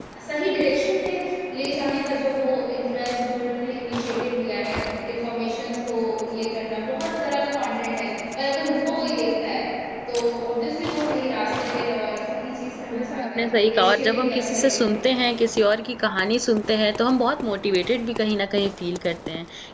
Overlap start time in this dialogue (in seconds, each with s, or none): 12.9 s